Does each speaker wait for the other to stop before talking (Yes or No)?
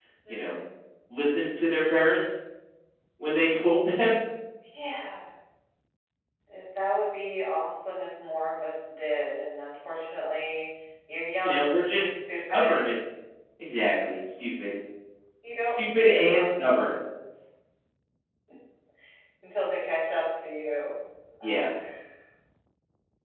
No